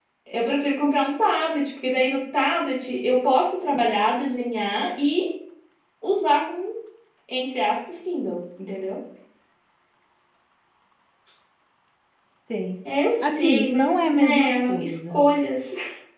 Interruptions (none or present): present